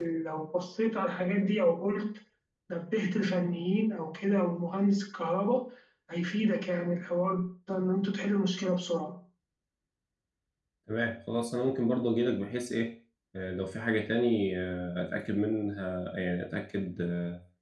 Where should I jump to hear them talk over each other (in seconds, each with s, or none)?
none